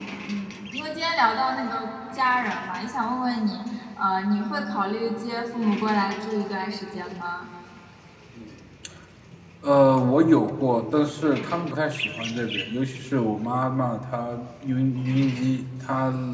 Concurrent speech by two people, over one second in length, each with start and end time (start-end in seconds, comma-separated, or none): none